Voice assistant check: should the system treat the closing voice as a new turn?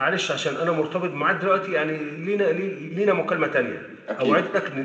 No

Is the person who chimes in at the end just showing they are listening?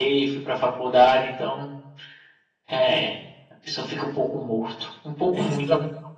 No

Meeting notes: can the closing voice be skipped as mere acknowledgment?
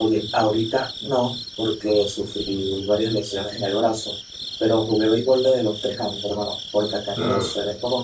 Yes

